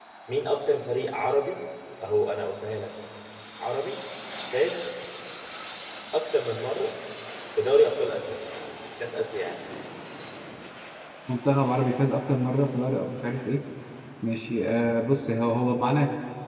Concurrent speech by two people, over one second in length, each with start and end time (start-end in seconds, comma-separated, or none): none